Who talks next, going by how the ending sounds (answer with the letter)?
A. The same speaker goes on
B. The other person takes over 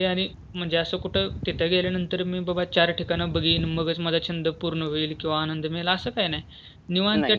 A